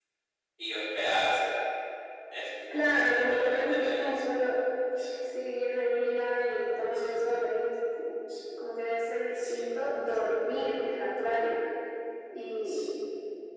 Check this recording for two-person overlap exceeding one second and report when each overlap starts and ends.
2.9-4.1

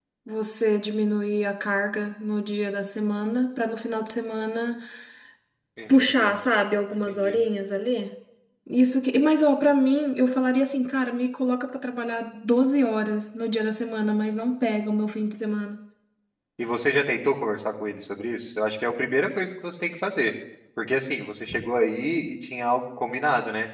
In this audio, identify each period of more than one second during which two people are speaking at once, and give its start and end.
none

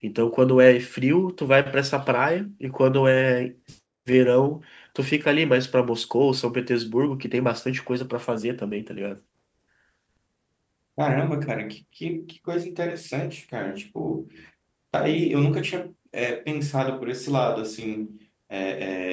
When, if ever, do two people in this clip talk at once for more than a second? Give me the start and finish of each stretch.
none

